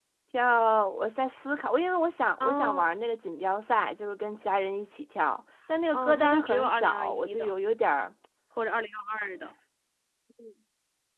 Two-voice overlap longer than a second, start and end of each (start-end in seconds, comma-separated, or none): 5.9-7.5